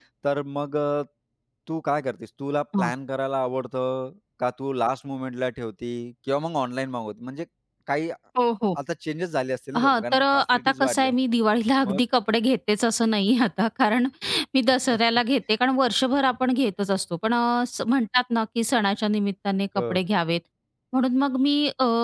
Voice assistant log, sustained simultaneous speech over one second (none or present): present